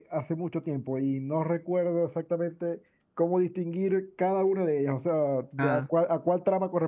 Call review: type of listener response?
listening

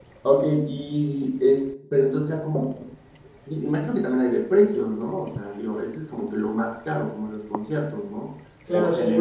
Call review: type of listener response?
taking over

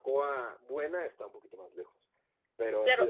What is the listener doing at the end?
taking over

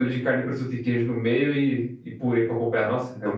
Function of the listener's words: taking over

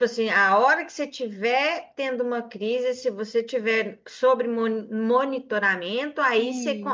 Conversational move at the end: listening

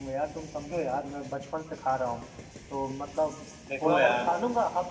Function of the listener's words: listening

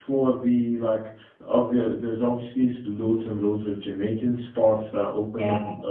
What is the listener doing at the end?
listening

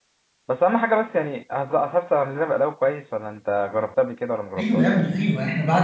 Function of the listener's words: taking over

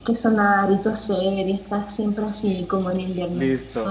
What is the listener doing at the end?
taking over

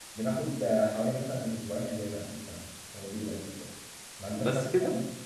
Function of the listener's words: listening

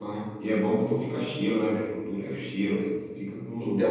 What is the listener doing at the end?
taking over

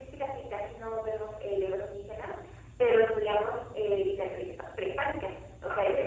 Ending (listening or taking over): listening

